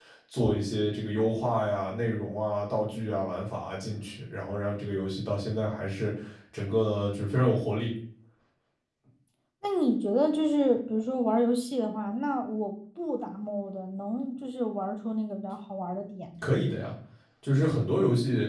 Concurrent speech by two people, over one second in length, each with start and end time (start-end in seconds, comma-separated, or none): none